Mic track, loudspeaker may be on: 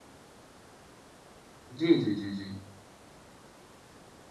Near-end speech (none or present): present